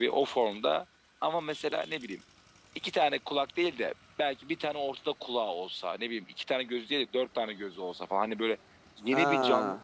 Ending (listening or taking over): listening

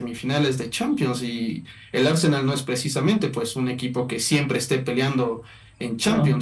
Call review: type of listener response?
listening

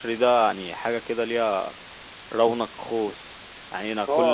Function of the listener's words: taking over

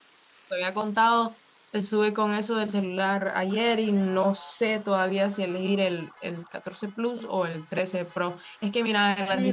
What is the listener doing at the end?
taking over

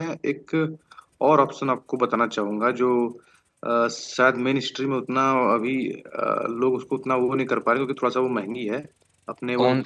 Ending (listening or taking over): listening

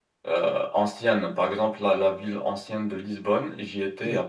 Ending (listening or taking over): listening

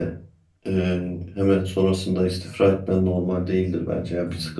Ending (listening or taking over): listening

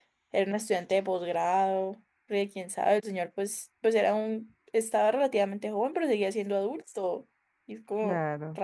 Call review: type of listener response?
taking over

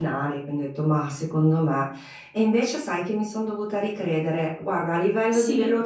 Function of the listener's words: listening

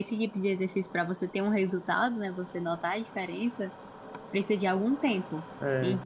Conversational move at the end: listening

